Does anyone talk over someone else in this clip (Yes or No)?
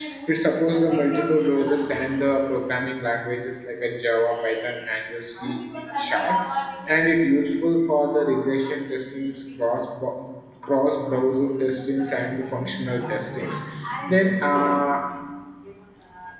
No